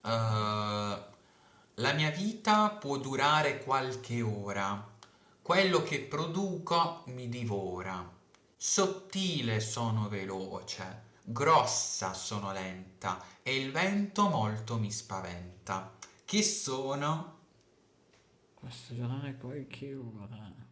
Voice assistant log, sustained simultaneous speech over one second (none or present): none